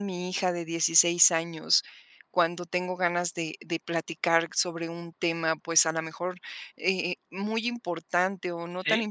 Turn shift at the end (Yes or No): No